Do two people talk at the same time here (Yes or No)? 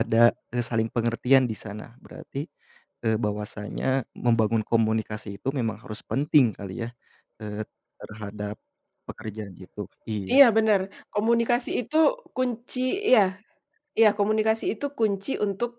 No